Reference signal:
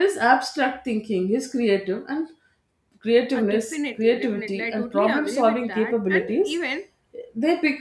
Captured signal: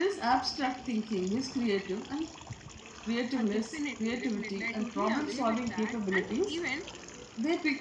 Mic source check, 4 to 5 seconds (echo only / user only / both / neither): echo only